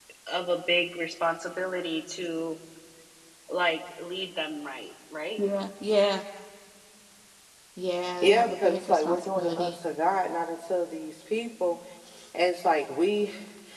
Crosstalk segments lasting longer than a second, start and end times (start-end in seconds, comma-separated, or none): 8.2-9.8